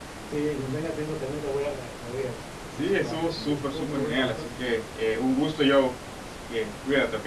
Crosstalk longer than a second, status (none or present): present